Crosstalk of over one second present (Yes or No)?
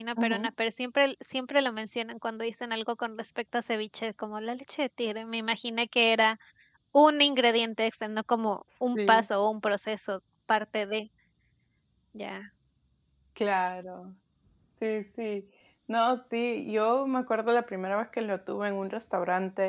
No